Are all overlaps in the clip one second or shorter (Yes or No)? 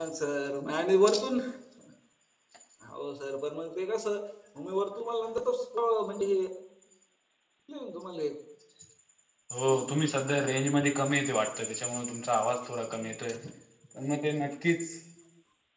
Yes